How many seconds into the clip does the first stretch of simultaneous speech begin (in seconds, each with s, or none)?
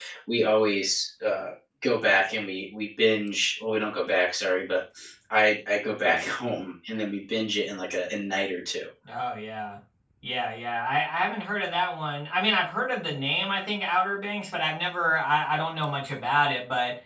none